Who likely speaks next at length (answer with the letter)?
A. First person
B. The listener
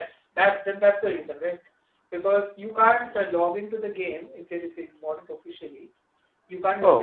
A